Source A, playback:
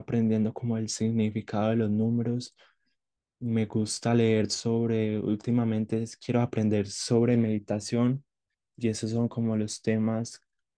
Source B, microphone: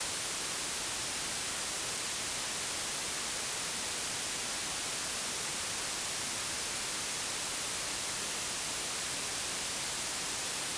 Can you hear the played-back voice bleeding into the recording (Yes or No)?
No